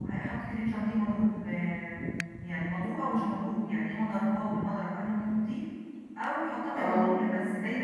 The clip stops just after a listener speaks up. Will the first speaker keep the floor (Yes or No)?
Yes